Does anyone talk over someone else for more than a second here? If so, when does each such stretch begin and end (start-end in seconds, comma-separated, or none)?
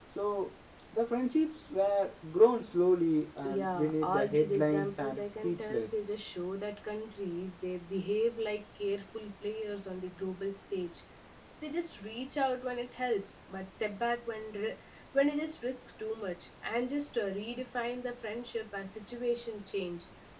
3.4-5.9